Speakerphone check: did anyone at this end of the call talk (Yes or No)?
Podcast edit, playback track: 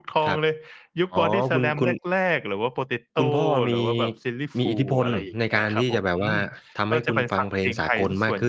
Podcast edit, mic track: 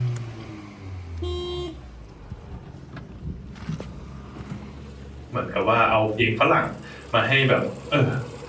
Yes